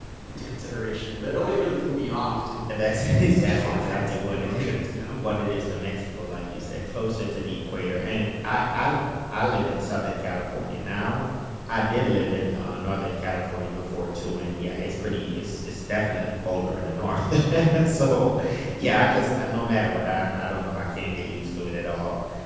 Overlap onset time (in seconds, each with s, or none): 2.7 s